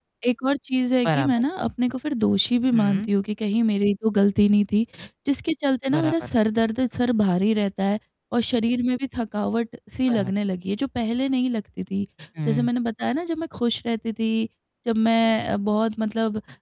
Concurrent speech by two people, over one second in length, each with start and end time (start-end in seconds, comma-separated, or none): none